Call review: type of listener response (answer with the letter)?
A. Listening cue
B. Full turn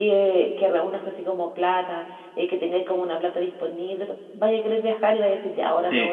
A